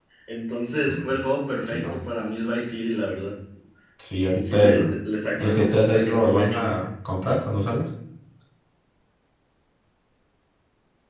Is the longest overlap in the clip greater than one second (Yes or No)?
Yes